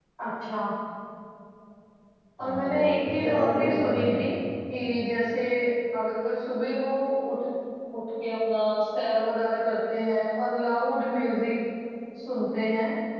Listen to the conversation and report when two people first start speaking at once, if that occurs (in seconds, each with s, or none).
2.4 s